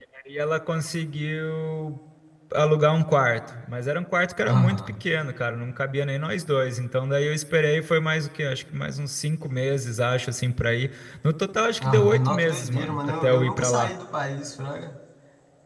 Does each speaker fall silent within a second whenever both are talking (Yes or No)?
No